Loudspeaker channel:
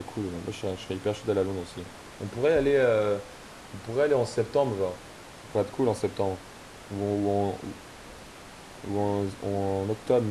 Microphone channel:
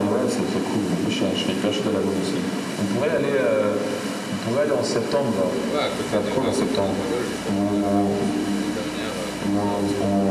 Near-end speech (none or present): present